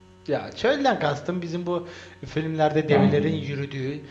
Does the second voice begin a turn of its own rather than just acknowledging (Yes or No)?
No